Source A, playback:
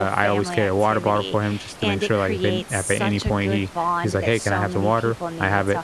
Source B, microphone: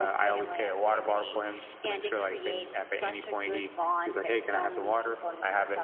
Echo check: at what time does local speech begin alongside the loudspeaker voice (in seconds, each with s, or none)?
none